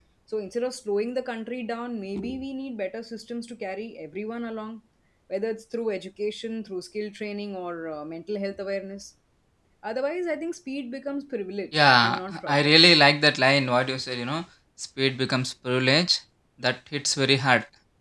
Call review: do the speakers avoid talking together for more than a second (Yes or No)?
No